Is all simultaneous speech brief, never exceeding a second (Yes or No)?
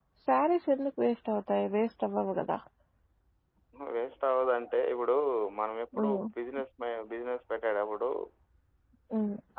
Yes